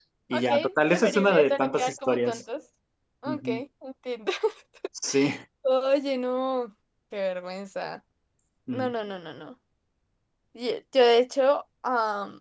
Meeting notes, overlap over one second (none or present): present